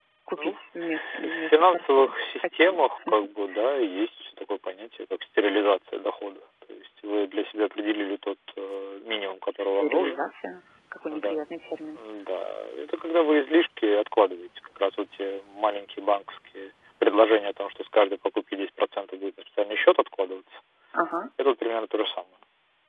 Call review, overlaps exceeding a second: present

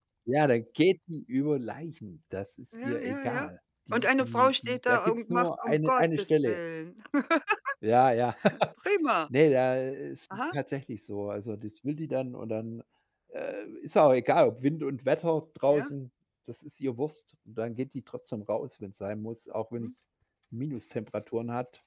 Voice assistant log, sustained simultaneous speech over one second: present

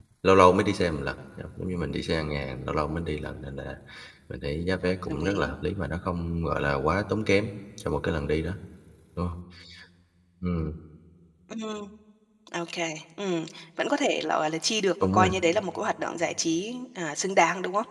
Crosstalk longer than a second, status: none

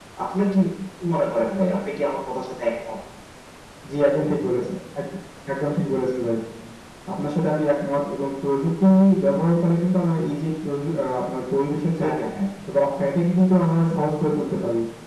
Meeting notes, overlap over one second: none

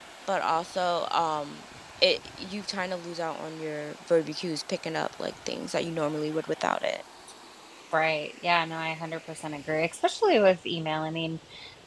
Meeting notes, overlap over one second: none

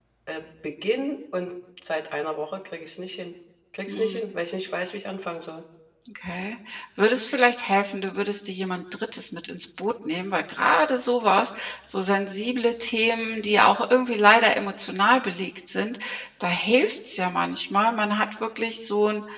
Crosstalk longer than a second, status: none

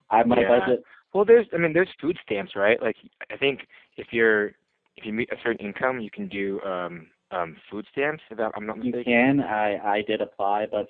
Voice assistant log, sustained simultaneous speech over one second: none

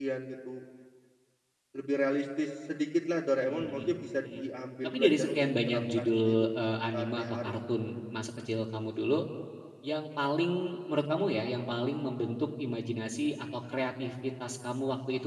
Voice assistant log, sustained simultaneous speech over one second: present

